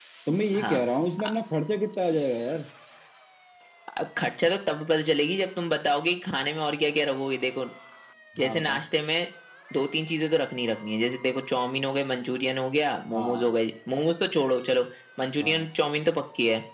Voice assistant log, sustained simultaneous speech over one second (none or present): none